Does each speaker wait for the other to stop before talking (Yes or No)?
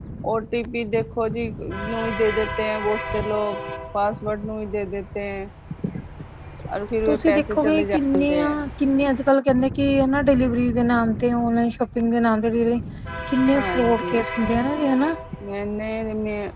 No